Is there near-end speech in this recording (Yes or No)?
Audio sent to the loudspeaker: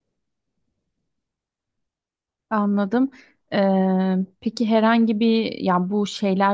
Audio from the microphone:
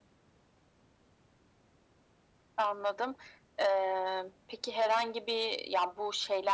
No